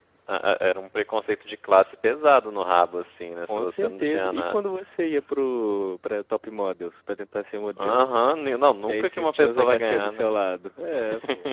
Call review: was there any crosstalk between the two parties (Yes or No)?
Yes